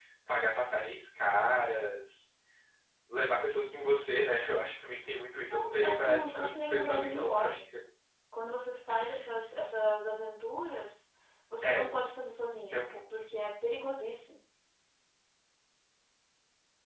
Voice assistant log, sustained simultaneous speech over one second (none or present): present